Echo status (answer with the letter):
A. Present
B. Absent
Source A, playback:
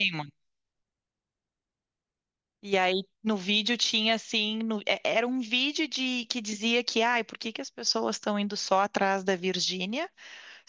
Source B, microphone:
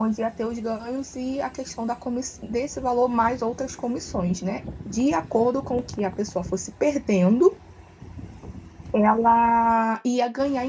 B